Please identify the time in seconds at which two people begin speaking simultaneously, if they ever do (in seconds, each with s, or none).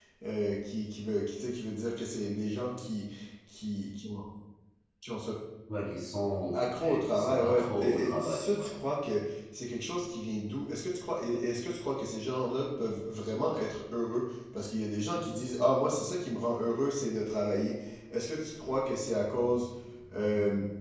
6.5 s